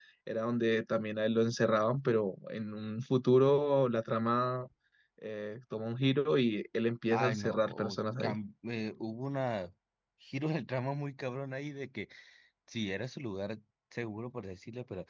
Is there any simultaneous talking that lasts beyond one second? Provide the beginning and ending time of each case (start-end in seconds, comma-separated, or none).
7.1-8.3